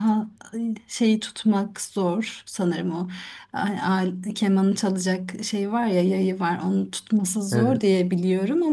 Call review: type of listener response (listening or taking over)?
listening